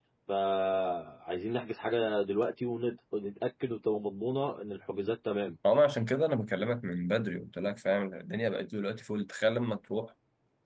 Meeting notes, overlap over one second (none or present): none